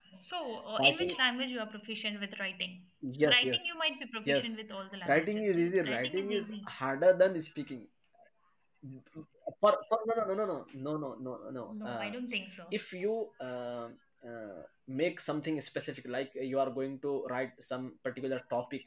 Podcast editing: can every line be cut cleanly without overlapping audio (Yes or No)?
No